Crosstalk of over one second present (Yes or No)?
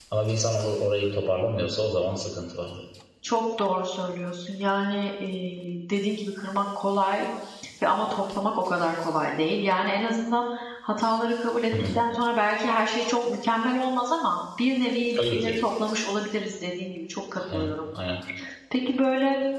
No